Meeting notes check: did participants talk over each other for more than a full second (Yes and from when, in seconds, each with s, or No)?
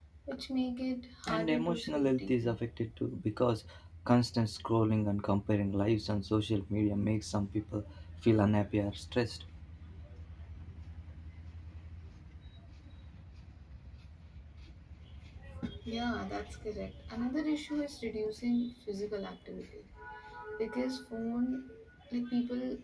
Yes, from 1.3 s